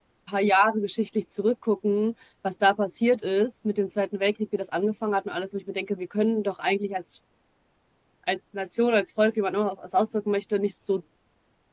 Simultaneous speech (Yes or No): No